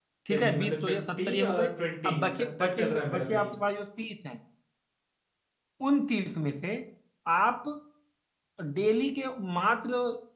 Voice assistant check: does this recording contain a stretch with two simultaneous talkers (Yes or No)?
Yes